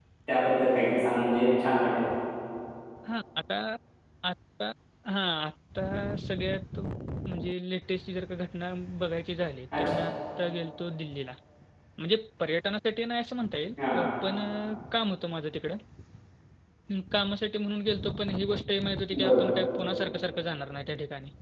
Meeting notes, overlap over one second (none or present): none